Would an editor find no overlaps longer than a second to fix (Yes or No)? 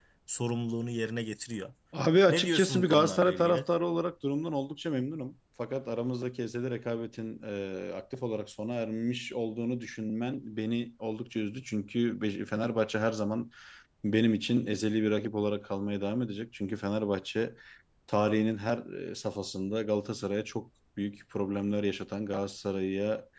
No